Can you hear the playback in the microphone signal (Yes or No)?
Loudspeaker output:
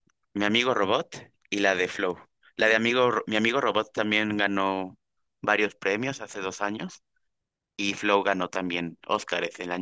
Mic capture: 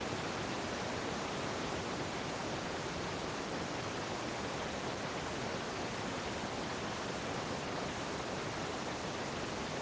No